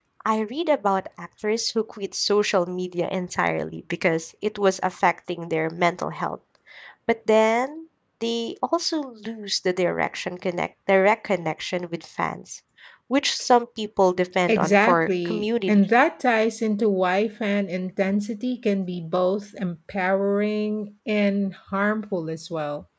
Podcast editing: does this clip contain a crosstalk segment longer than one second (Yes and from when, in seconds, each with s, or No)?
Yes, from 14.5 s